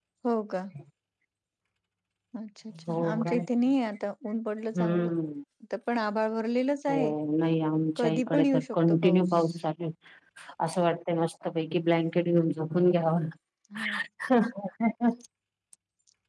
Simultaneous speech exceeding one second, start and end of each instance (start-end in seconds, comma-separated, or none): 8.0-9.2